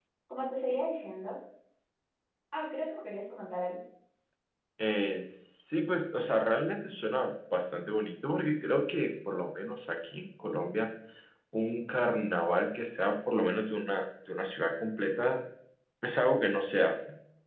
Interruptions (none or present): none